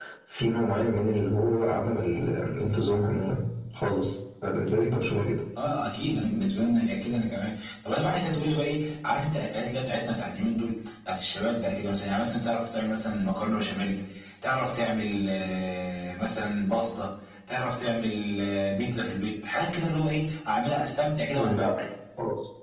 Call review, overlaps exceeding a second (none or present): none